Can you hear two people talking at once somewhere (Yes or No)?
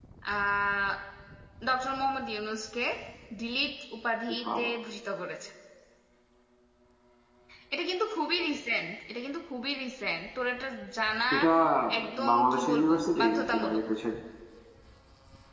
Yes